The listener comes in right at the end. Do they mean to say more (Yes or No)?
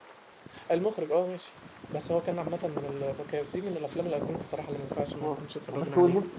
Yes